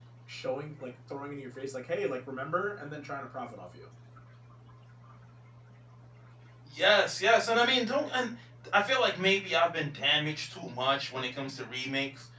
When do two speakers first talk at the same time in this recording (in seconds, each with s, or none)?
none